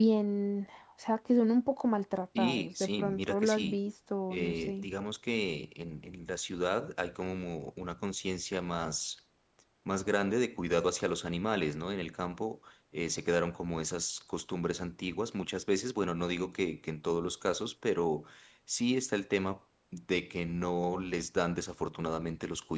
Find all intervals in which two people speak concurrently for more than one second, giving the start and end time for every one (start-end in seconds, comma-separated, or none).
2.4-3.8